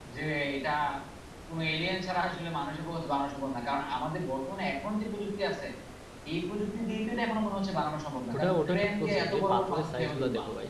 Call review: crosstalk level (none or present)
present